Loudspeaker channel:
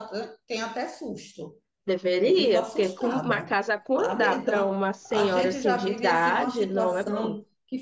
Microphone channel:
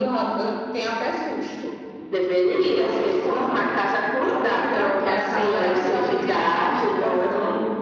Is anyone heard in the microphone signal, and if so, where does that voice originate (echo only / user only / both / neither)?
both